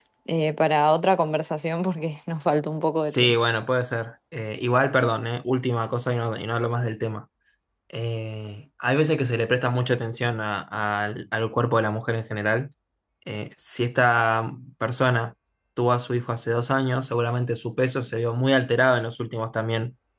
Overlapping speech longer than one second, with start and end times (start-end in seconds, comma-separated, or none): none